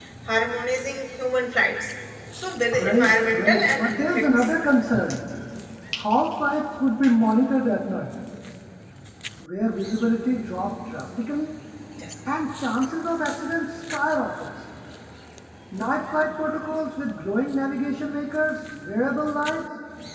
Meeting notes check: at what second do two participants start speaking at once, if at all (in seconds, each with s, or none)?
2.8 s